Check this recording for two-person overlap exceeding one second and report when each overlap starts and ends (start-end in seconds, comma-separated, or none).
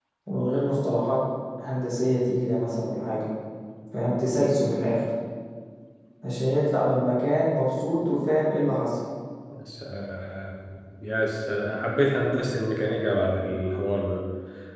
none